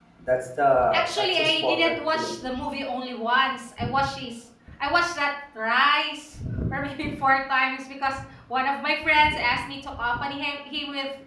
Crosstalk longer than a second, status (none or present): present